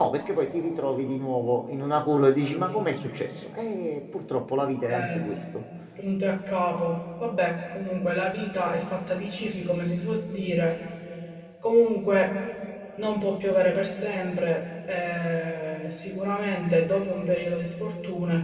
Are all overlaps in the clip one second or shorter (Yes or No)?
Yes